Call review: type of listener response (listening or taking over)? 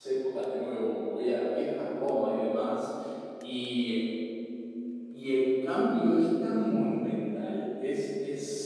listening